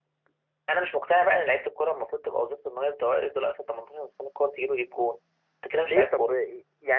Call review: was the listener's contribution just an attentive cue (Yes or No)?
No